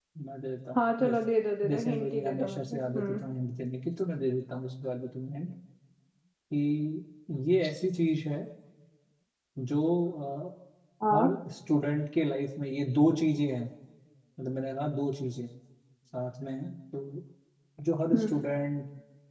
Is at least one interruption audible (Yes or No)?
Yes